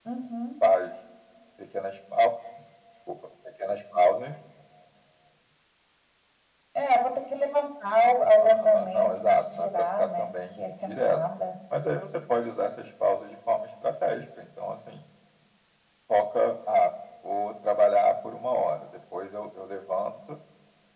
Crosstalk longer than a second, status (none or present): present